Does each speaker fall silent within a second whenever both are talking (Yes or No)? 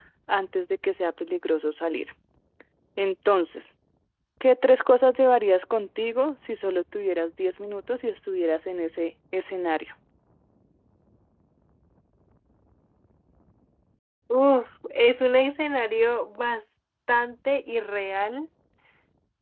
Yes